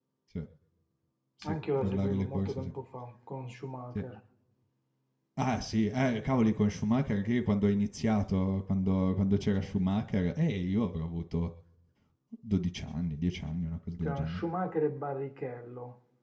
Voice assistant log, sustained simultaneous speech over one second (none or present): present